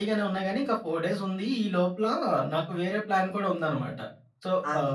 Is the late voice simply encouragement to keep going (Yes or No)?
Yes